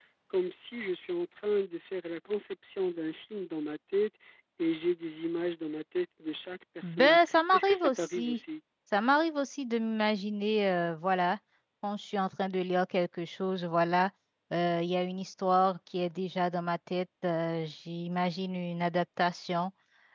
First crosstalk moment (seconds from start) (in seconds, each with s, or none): 6.8 s